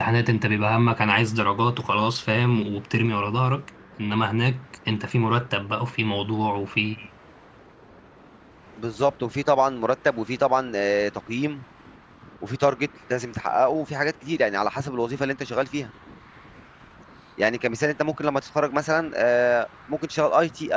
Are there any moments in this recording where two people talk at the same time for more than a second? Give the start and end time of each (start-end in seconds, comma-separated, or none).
none